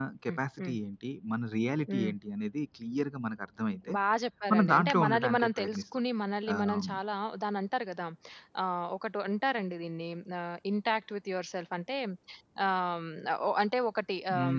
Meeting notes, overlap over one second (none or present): present